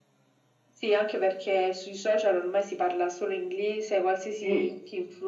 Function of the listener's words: listening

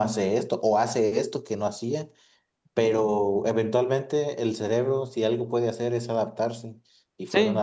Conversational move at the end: listening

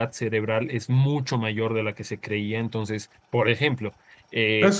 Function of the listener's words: taking over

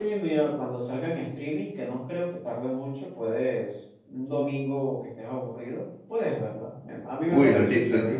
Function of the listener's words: taking over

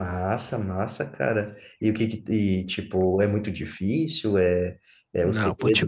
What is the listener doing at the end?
taking over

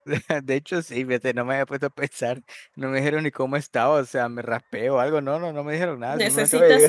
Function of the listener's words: taking over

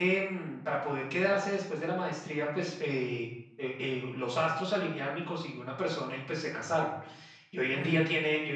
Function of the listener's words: listening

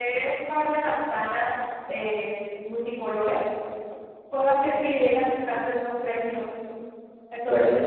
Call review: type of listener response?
taking over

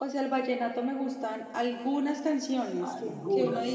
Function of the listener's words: listening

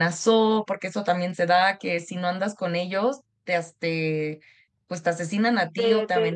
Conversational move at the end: taking over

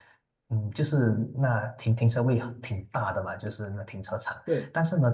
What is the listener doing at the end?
listening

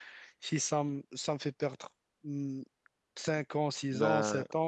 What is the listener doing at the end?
listening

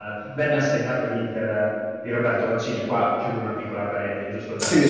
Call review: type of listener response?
taking over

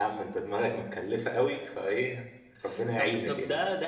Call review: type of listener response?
taking over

